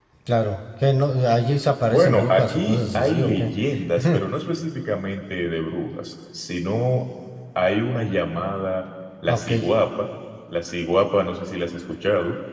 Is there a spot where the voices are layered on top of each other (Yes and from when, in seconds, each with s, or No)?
Yes, from 1.9 s